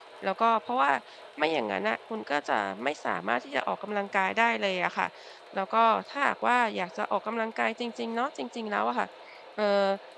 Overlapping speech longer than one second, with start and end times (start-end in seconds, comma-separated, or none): none